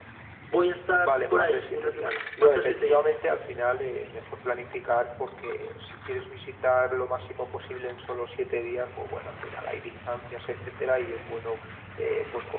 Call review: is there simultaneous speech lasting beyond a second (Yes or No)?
Yes